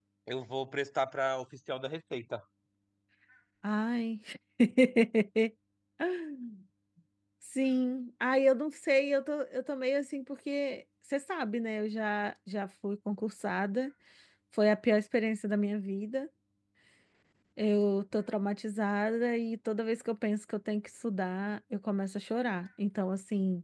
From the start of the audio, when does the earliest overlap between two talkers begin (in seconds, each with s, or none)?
none